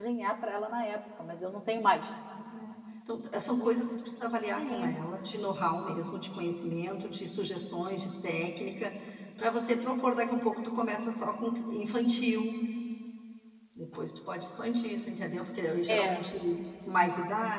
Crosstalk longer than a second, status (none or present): none